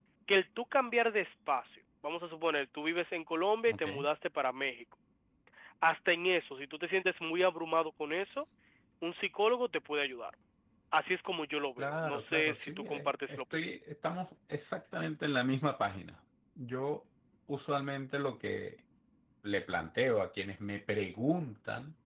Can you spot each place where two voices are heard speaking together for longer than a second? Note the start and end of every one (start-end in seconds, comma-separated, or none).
11.8-13.7